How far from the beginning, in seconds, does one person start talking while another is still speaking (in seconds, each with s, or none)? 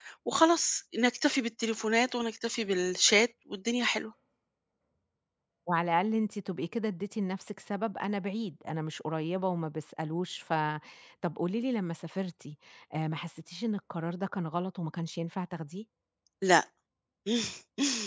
none